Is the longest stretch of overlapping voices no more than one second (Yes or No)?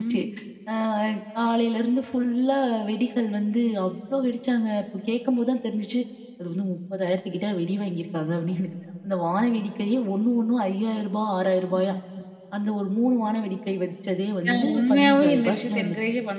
No